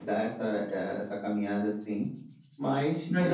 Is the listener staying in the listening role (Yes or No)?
No